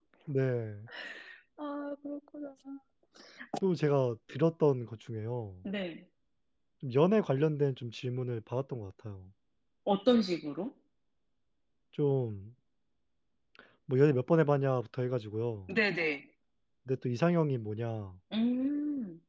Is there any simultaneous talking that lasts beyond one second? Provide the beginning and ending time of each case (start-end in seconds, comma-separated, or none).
none